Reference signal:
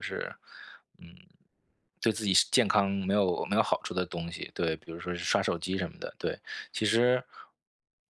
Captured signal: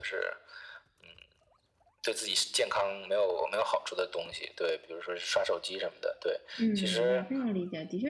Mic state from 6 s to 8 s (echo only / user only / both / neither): both